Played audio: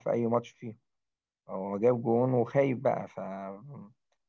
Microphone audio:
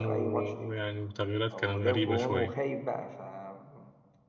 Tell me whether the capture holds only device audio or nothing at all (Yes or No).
No